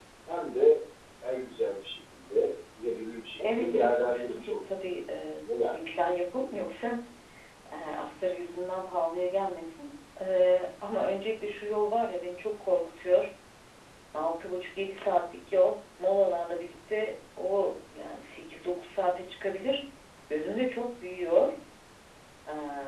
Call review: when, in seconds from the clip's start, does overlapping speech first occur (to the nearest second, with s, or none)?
3 s